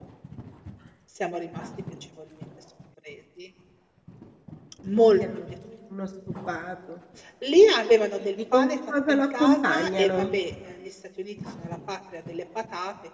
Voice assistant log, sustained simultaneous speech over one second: present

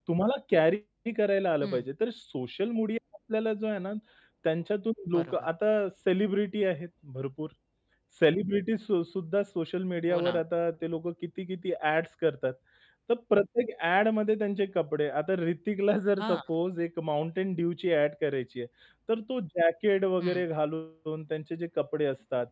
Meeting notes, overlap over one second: none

